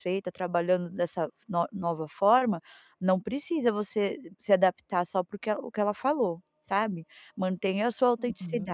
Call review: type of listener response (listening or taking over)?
listening